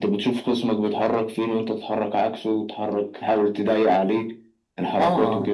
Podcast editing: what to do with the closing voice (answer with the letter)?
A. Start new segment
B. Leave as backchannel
A